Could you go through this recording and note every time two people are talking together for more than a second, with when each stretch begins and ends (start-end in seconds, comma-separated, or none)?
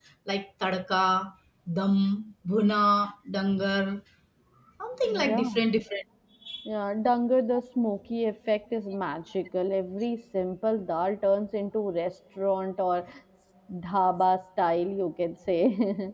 none